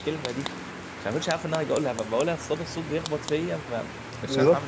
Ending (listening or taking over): taking over